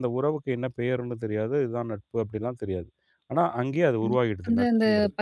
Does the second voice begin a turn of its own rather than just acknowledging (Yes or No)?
Yes